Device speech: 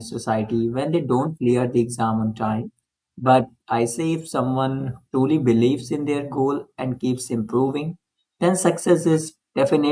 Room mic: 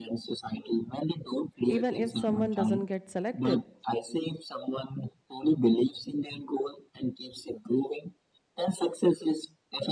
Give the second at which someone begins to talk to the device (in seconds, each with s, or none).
1.7 s